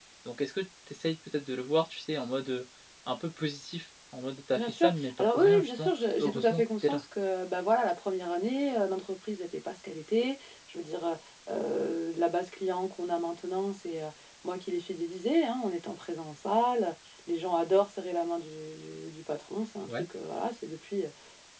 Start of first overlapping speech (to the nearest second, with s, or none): 5 s